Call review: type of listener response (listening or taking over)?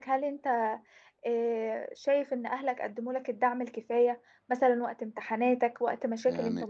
taking over